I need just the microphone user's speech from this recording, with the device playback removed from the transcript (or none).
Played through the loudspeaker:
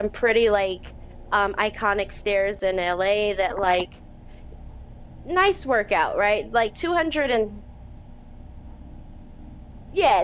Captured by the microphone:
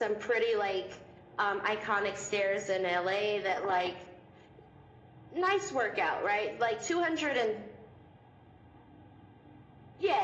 none